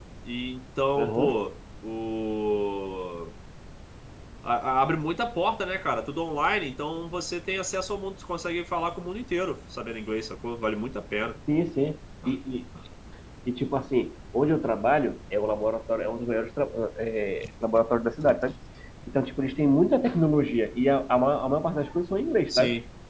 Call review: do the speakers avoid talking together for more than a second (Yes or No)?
Yes